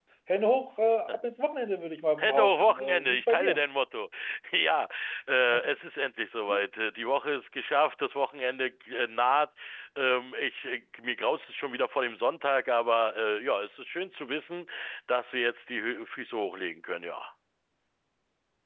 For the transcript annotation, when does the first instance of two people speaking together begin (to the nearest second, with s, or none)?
2 s